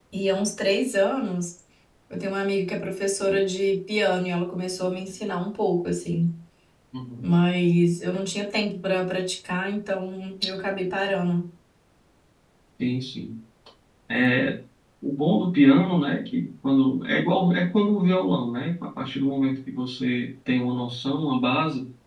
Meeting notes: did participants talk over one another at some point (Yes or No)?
No